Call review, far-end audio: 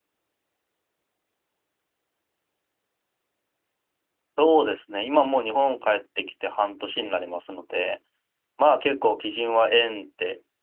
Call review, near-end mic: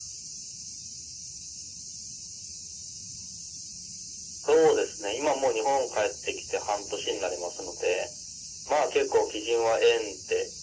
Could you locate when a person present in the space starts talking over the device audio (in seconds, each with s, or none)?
none